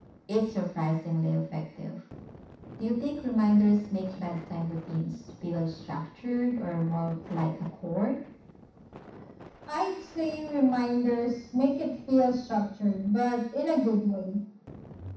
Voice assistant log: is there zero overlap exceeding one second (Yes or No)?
Yes